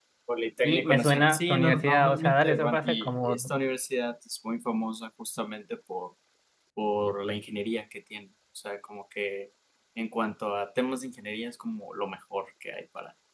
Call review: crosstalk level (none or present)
present